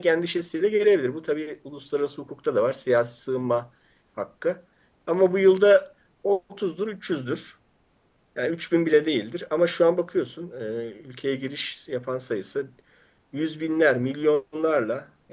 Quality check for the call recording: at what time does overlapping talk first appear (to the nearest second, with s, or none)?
none